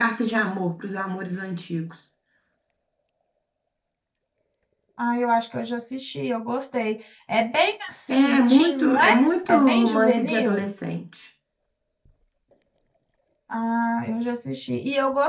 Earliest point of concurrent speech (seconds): 8 s

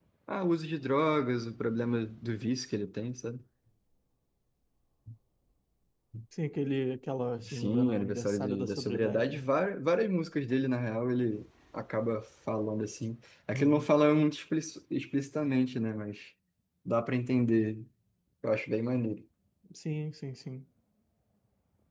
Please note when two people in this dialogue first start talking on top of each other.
7 s

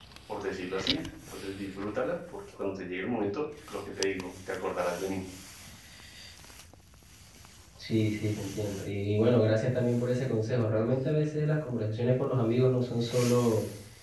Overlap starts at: none

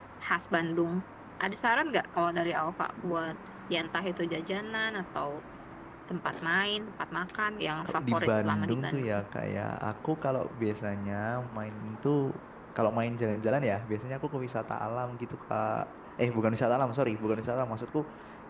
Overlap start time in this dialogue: 8 s

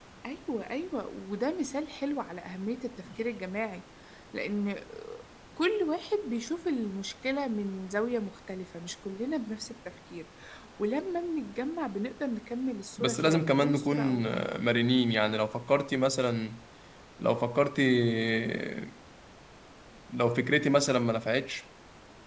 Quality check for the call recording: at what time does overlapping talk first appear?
13 s

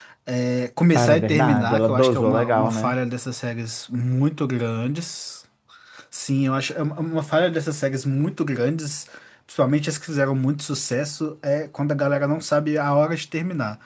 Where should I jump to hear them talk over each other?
1 s

